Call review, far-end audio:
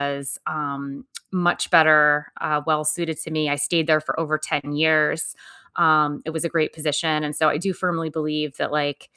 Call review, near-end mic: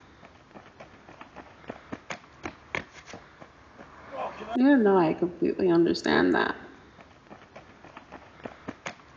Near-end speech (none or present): present